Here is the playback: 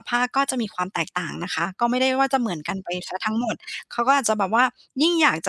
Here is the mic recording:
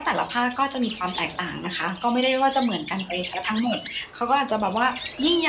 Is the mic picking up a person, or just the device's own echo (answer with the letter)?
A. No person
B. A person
A